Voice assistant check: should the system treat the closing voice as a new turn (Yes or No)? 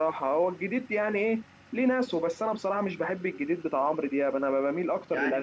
Yes